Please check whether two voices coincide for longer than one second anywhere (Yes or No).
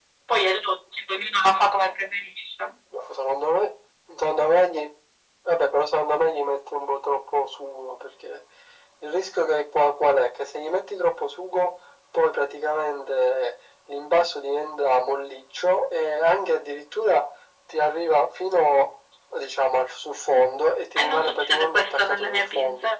Yes